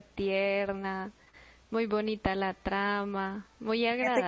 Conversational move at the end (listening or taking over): taking over